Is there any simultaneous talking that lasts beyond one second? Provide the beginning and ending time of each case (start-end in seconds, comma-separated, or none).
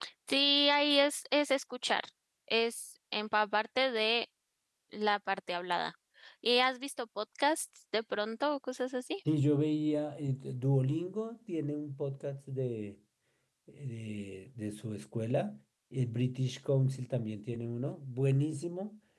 none